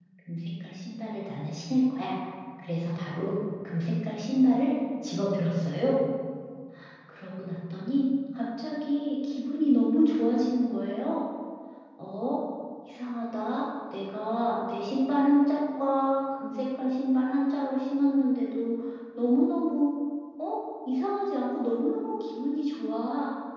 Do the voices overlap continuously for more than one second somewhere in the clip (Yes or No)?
No